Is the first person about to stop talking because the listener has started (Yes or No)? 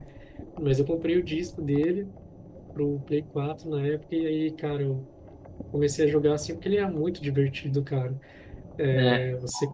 No